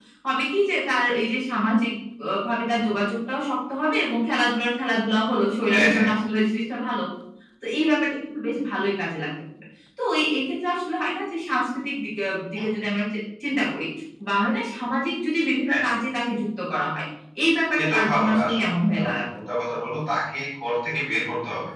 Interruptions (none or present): present